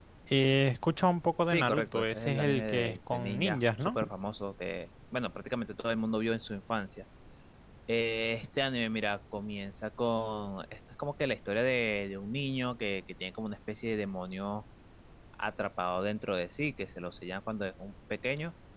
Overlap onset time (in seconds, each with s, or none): 1.5 s